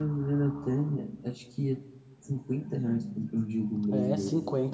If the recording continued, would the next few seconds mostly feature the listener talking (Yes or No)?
Yes